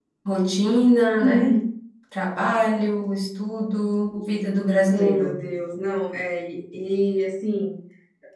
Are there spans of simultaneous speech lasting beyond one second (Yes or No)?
No